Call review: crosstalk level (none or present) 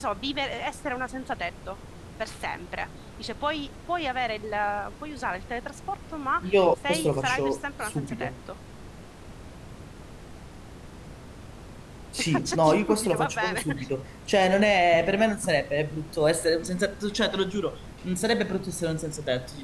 present